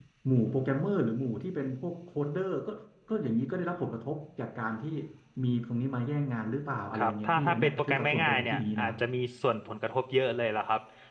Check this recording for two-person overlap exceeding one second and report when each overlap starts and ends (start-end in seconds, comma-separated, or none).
6.9-8.9